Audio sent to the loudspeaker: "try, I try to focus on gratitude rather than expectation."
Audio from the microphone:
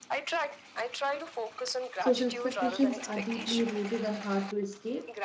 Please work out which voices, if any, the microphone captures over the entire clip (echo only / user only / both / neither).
both